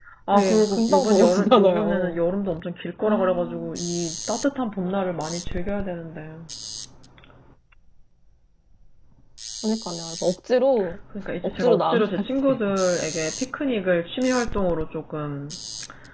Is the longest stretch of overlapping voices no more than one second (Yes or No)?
No